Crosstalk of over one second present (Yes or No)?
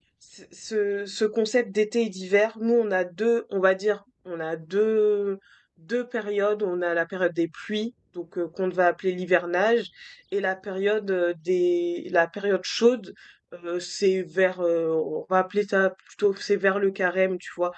No